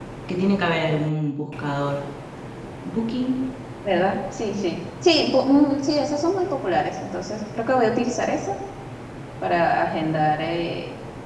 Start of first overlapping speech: none

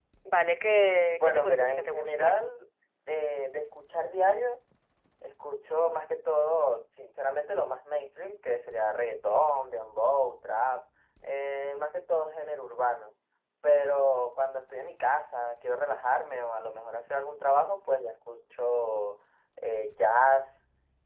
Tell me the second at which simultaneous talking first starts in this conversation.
1.2 s

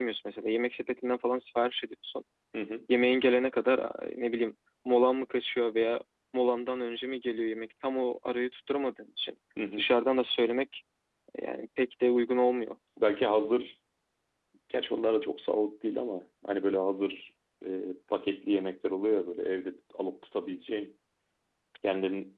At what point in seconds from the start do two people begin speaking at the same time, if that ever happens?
none

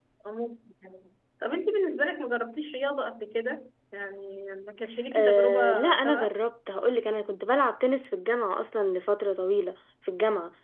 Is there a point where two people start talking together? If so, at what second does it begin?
5.1 s

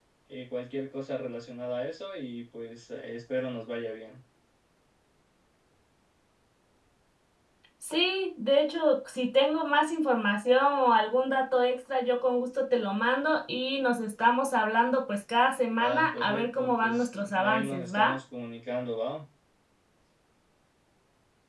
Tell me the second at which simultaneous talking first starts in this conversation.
15.7 s

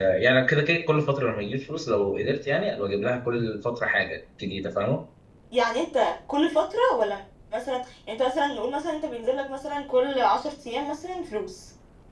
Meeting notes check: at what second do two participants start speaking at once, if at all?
none

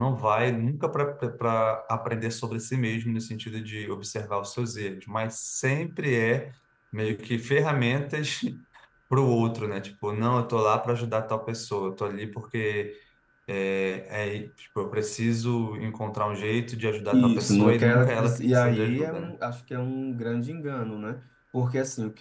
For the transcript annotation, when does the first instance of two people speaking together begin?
17.1 s

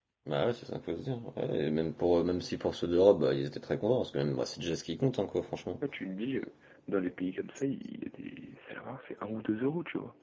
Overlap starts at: none

